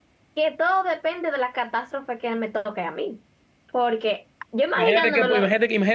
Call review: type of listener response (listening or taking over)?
taking over